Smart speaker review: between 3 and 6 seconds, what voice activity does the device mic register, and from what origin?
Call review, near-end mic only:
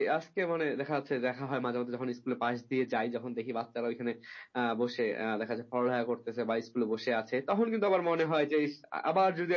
echo only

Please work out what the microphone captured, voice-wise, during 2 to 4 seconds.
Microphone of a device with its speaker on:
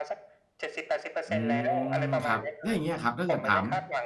both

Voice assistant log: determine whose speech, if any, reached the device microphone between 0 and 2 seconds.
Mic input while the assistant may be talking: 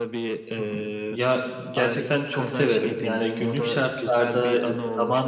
both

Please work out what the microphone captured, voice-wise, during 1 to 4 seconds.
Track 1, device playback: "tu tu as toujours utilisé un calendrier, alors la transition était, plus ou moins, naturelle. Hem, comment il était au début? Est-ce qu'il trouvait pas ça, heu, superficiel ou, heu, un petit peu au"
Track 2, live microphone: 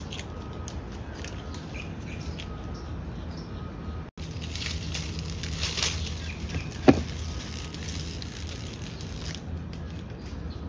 neither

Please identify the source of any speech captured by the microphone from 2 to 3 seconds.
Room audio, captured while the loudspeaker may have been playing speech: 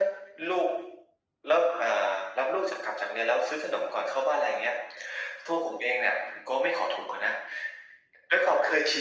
echo only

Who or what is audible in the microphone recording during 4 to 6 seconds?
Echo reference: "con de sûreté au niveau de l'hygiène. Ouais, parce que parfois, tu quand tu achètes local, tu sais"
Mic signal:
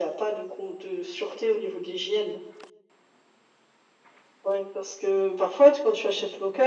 echo only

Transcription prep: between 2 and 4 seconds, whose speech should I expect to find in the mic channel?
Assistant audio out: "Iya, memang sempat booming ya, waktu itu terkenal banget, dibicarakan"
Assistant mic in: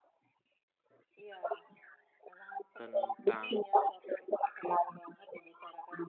both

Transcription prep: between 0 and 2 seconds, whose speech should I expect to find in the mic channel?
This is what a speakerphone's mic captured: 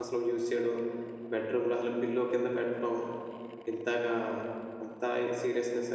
user only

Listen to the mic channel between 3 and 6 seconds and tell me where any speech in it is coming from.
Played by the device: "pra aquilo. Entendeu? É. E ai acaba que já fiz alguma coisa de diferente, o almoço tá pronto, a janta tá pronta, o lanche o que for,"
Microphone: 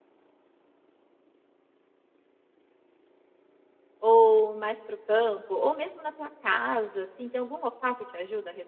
user only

